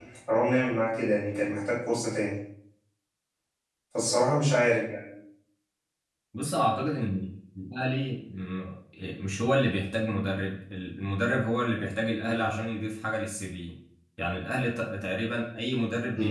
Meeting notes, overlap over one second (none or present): none